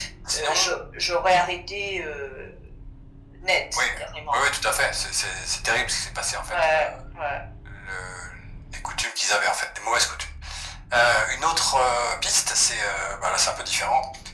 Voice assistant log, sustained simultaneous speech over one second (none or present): none